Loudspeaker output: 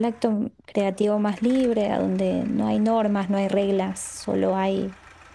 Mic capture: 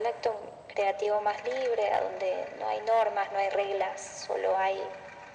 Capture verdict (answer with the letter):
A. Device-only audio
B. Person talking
A